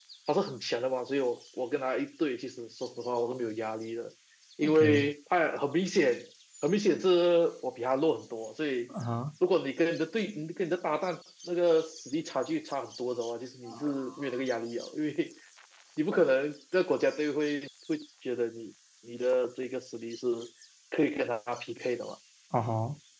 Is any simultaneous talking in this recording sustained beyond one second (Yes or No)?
No